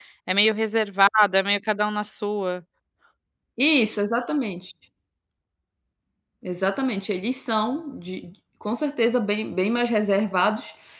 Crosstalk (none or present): none